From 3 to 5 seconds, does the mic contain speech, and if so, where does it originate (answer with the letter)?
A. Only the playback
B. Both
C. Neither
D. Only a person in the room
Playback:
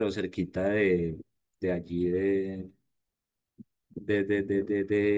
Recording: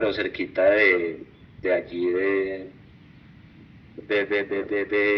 A